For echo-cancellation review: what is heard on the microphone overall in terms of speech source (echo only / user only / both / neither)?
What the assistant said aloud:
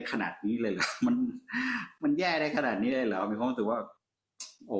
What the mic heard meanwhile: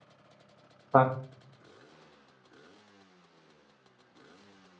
user only